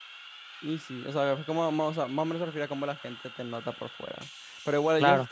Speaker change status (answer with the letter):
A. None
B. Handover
A